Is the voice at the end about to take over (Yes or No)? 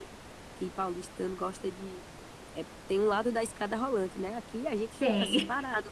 No